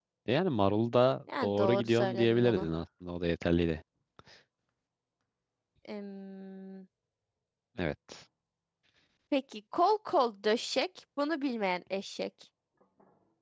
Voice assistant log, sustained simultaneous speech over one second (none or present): present